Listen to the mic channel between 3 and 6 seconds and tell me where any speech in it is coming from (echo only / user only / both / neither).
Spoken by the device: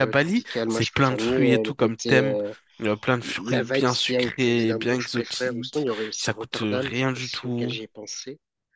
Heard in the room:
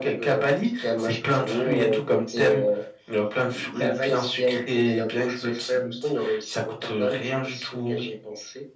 echo only